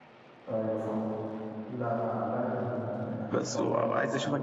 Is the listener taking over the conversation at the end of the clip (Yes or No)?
Yes